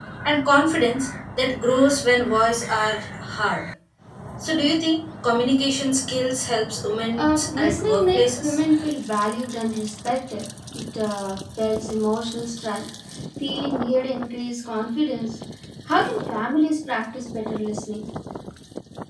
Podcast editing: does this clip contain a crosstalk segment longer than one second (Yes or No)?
Yes